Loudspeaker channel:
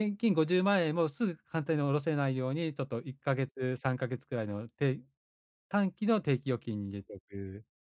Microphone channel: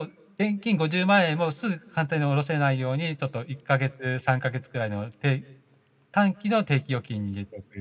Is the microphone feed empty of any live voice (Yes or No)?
Yes